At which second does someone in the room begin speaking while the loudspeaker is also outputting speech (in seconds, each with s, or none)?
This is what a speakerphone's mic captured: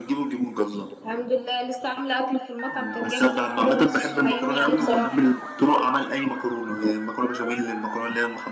4.8 s